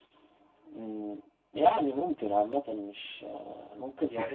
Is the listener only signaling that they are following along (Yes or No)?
No